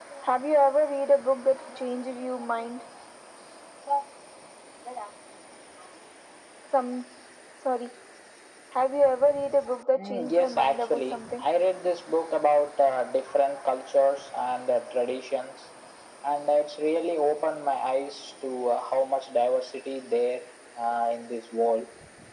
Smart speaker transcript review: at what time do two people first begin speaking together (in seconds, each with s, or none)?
9.9 s